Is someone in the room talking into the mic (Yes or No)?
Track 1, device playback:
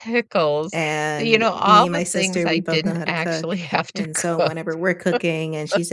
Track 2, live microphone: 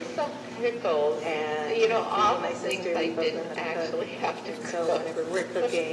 No